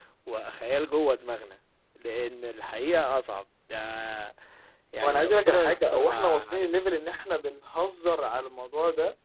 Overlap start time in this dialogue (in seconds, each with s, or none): 5.0 s